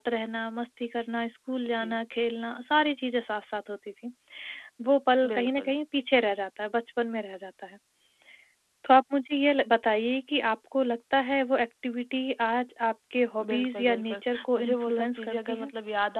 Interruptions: present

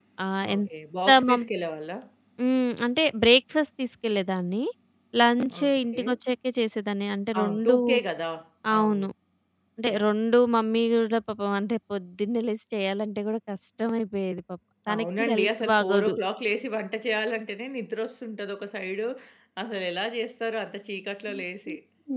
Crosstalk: present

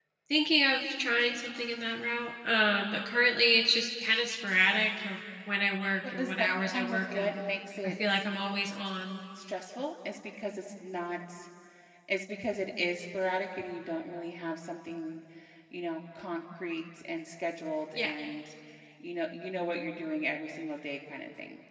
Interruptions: present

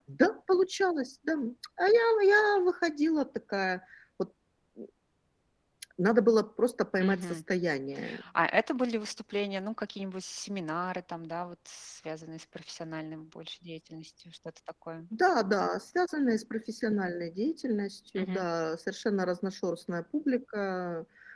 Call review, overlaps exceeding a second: none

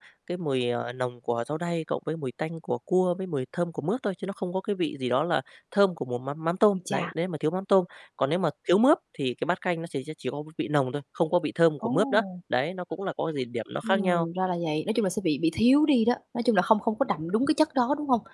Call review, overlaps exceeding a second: none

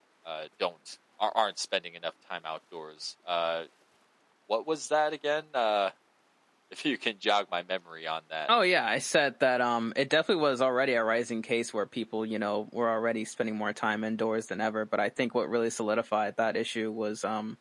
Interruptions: none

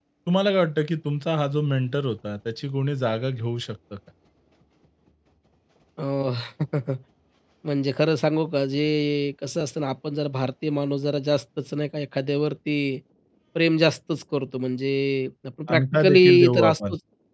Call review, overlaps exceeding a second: present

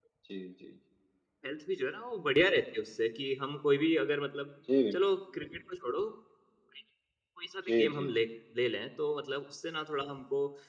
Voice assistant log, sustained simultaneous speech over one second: none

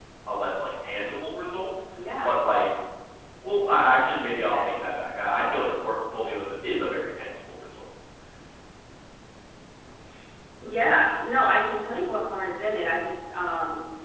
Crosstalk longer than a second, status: none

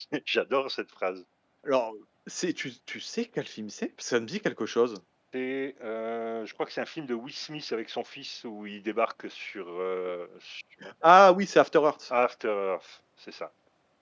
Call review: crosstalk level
none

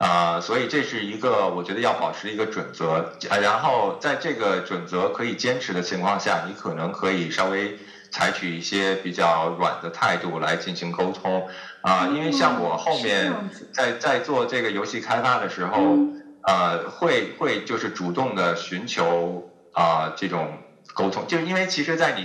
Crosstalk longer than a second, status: present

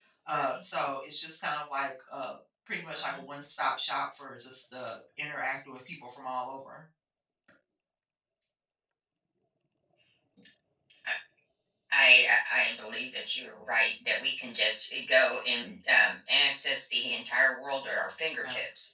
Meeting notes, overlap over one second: none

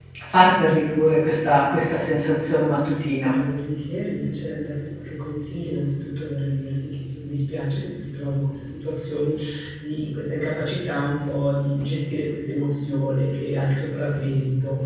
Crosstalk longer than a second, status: none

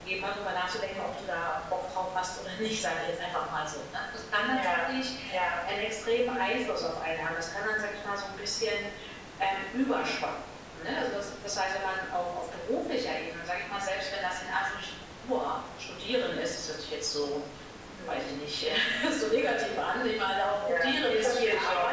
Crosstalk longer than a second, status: present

